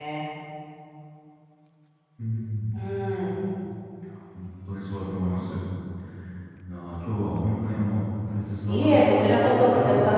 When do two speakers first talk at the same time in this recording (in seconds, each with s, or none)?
8.7 s